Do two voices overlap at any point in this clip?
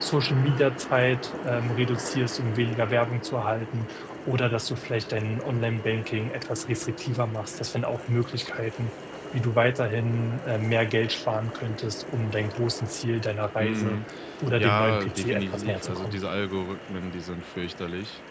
Yes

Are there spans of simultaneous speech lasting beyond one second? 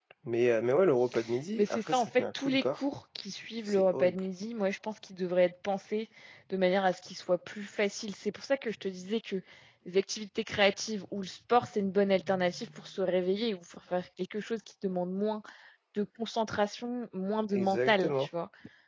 Yes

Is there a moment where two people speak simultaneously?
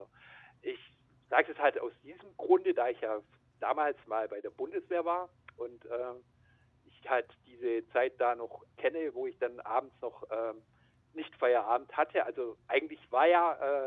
No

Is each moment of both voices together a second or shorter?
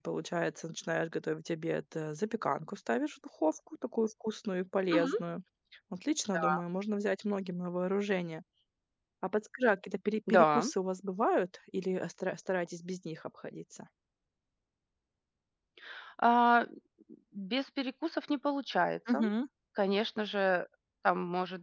Yes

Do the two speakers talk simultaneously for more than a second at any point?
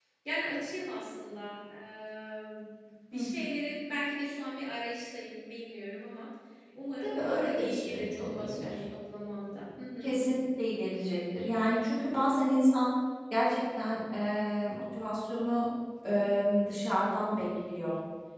Yes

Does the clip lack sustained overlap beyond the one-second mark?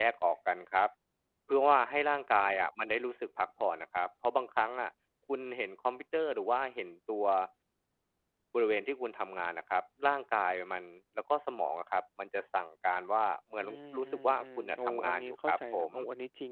No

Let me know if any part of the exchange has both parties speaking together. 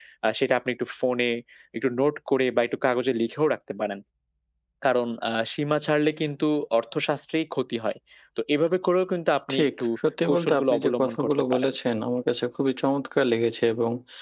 Yes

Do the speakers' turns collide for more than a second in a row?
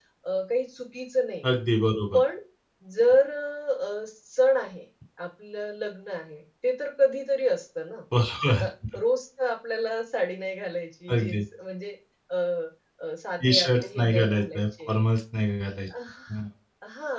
Yes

